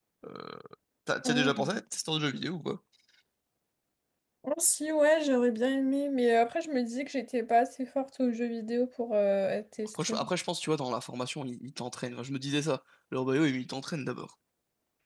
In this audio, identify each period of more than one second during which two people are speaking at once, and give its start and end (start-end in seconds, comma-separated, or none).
none